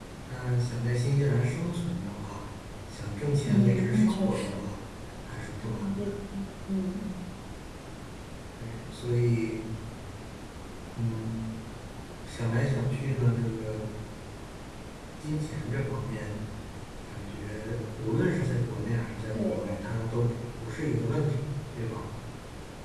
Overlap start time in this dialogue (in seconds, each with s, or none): 3.5 s